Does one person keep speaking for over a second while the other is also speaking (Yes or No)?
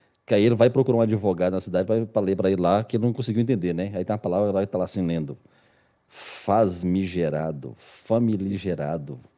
No